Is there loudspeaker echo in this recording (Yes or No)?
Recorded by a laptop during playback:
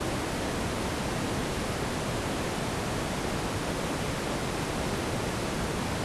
No